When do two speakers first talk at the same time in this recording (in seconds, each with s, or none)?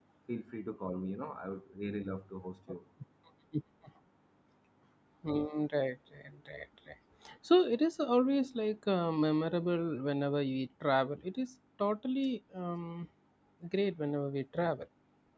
none